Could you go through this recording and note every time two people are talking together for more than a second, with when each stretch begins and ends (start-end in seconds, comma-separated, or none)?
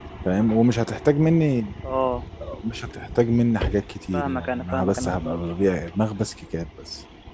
4.1-5.7